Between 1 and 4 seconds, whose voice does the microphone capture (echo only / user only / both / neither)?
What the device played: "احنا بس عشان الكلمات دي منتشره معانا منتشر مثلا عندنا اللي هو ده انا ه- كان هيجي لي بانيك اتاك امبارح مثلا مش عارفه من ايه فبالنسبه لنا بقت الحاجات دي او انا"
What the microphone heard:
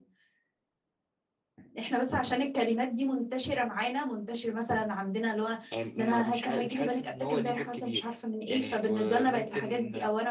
echo only